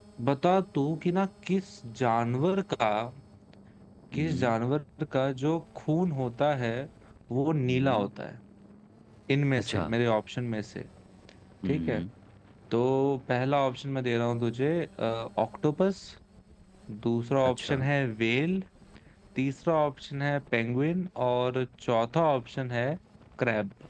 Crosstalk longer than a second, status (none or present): none